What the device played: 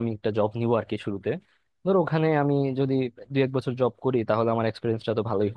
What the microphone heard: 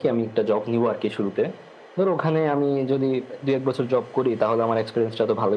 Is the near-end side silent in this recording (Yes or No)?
Yes